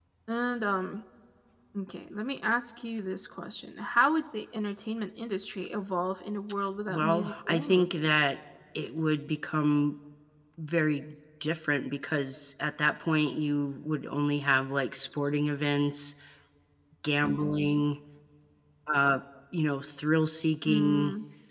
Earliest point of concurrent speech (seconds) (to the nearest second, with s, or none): 7 s